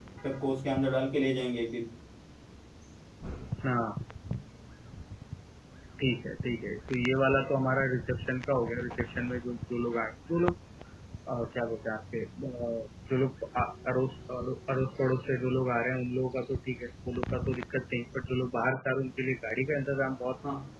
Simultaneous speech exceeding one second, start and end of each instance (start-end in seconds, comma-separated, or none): none